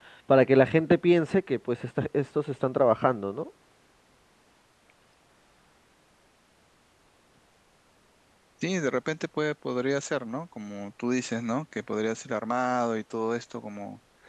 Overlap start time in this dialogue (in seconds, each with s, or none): none